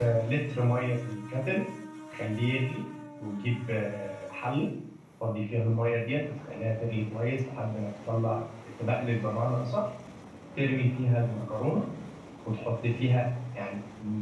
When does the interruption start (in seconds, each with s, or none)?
none